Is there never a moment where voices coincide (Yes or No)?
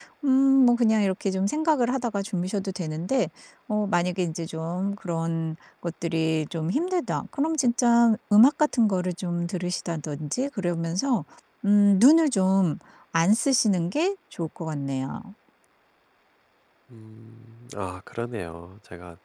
Yes